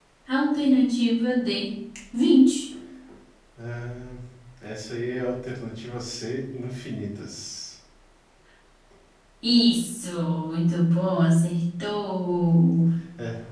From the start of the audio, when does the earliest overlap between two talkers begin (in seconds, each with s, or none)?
none